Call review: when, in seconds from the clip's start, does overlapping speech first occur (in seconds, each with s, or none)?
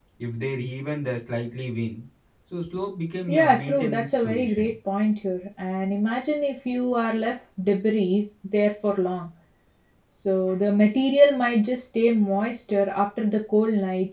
3.3 s